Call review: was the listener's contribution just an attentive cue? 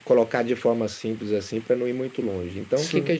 Yes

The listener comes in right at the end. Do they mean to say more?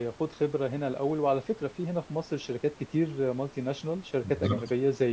No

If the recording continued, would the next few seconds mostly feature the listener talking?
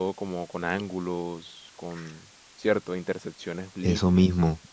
Yes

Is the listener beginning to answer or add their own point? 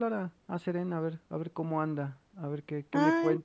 No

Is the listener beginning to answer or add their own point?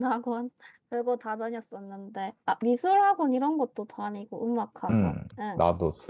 Yes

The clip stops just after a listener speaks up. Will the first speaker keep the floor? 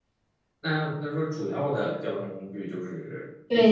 No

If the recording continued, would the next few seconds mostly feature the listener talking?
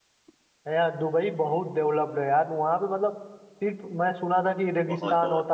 No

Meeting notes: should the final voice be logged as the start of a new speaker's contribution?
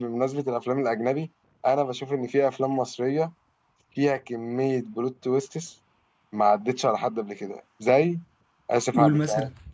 Yes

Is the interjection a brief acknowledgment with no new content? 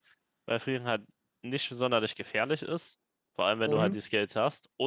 Yes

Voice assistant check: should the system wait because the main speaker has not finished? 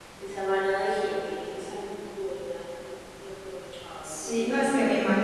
No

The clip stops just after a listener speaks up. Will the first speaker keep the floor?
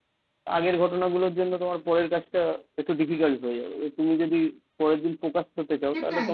No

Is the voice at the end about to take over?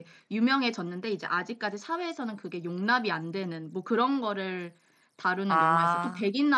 No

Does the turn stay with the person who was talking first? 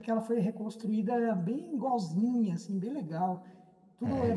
No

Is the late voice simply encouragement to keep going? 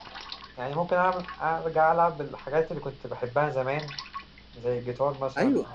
No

